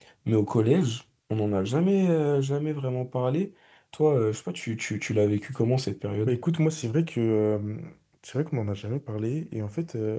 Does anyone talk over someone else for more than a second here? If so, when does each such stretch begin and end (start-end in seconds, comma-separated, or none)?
none